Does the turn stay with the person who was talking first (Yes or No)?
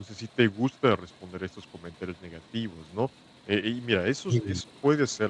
Yes